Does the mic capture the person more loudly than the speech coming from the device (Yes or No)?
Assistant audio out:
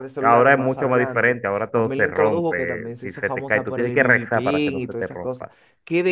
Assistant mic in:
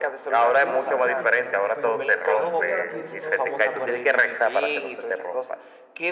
No